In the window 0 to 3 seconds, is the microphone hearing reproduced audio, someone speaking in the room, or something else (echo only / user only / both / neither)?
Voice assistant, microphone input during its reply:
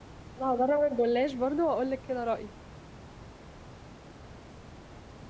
user only